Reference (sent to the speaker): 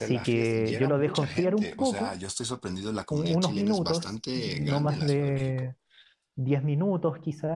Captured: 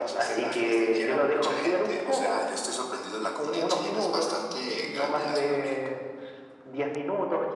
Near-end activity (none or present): none